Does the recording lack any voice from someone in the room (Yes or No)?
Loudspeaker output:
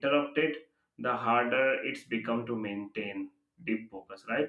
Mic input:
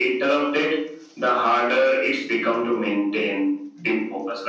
Yes